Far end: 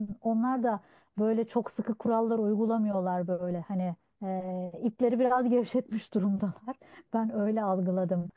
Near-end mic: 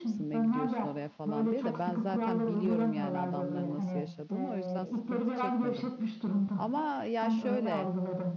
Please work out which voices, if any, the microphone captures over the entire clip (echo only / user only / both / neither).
both